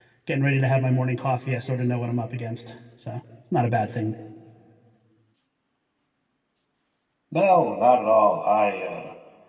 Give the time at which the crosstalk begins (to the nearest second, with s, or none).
none